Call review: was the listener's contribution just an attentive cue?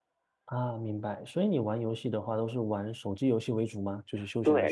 No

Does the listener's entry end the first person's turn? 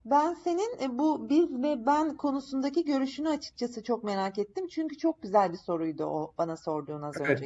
Yes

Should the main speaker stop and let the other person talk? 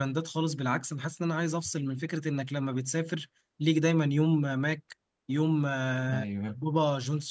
No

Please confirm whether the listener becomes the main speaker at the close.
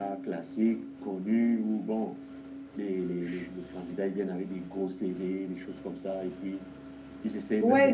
Yes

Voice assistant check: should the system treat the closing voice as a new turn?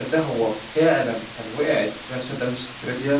No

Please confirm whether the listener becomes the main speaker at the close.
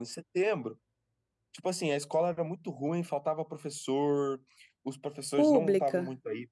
No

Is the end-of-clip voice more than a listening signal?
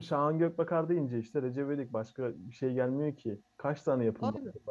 No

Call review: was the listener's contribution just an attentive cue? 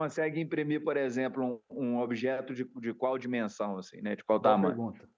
No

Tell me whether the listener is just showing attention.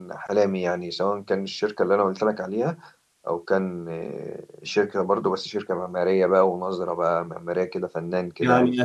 No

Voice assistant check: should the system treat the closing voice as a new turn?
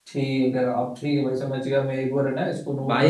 Yes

